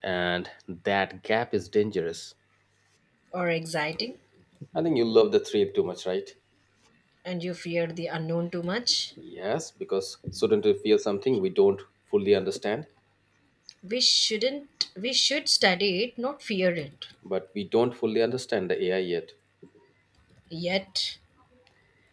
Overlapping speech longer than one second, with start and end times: none

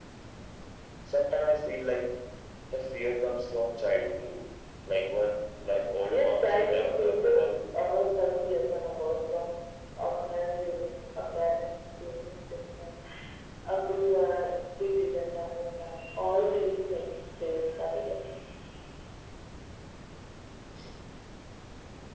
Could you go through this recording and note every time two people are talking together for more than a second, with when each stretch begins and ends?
6.1-7.5

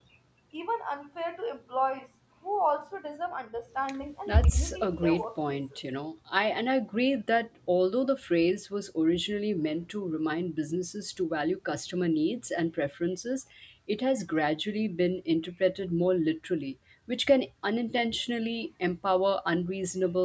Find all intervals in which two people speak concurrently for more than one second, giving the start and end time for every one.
4.3-5.8

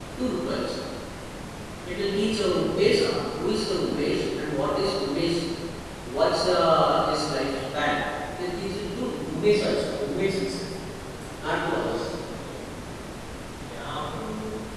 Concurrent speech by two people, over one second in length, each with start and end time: none

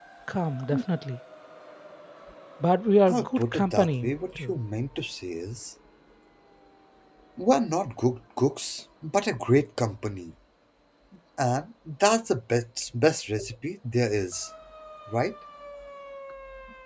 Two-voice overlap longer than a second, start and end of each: 3.1-4.6

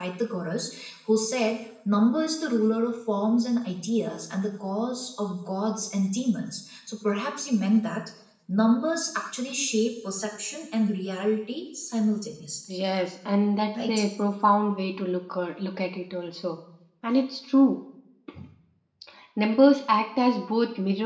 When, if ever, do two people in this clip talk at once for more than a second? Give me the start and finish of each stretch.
none

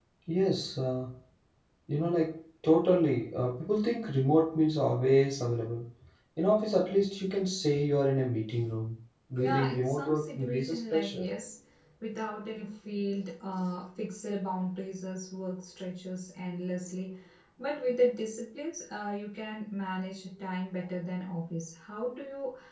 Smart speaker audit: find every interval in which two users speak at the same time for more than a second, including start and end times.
9.4-11.3

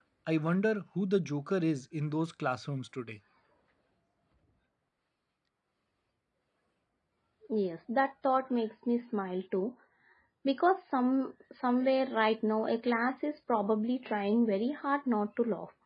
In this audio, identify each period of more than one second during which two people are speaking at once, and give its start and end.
none

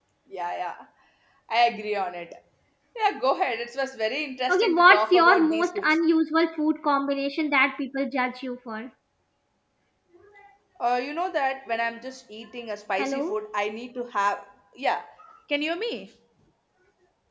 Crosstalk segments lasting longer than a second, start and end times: 4.5-6.0

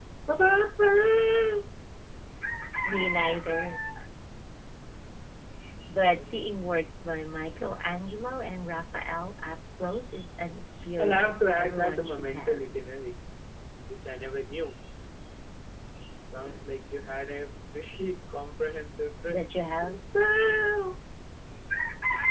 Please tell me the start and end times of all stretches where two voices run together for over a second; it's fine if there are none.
11.0-12.6

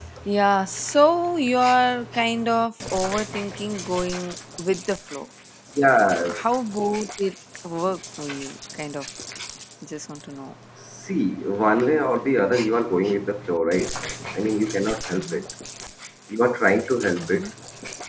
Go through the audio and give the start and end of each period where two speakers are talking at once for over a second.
none

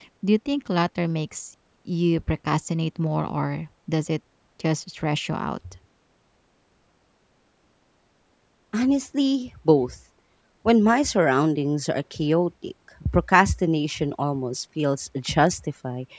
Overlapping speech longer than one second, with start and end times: none

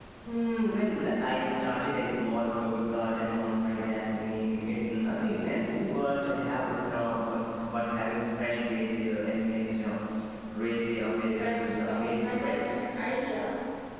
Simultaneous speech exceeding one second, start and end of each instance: 11.3-12.6

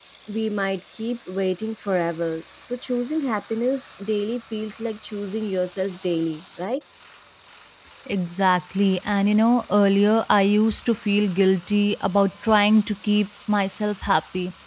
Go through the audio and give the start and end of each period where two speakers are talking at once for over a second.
none

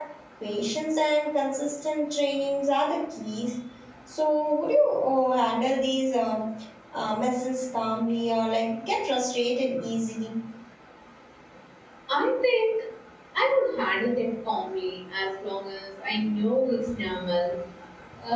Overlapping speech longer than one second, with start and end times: none

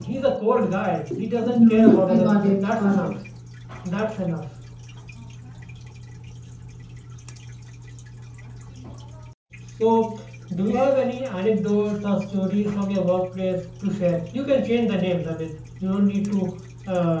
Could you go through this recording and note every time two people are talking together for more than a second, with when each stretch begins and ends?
1.4-3.1

